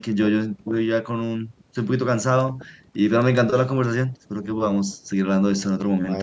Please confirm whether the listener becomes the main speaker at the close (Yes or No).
Yes